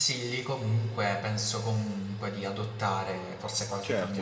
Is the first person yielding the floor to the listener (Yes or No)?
Yes